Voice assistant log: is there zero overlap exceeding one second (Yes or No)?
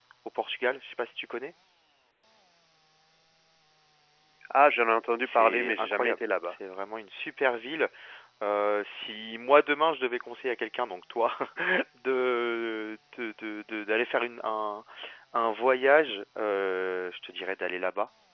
No